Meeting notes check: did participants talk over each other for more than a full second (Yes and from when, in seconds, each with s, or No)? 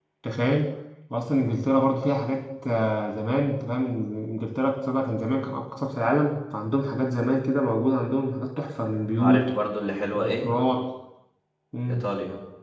No